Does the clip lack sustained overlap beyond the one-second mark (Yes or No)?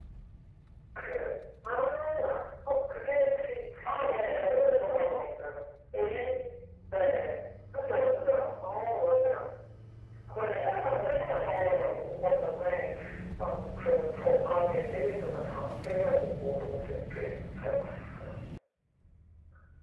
No